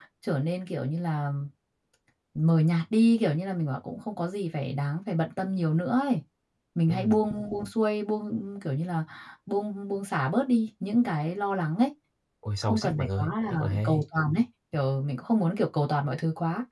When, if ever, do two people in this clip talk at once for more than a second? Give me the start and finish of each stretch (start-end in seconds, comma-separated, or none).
12.7-14.0